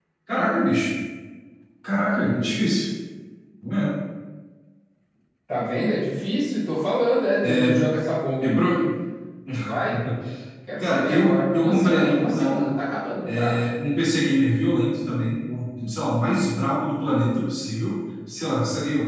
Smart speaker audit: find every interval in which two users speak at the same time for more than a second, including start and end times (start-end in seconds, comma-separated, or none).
10.8-12.7